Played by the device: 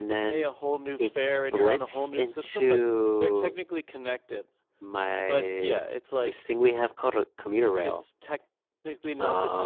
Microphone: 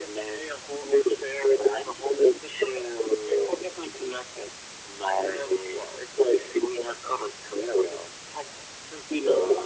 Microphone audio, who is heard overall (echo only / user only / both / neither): echo only